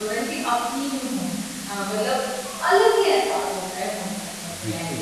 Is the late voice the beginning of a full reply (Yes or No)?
Yes